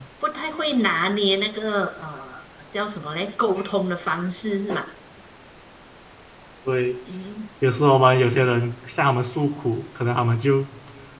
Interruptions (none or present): none